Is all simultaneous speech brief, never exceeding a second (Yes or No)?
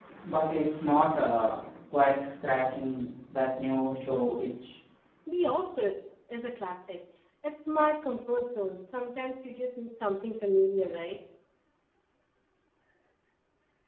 Yes